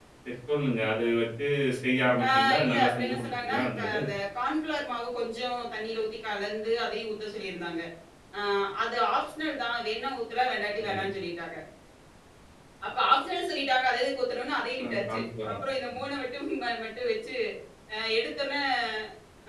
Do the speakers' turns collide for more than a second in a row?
Yes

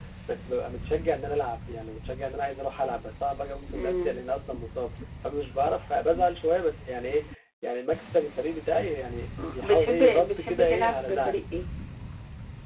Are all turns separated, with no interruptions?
No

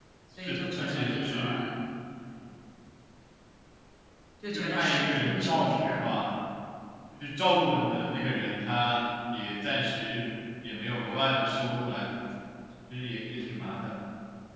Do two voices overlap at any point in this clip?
Yes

